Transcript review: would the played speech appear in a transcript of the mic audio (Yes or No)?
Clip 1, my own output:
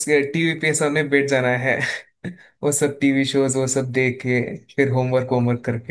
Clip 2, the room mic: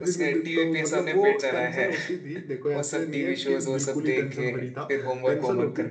Yes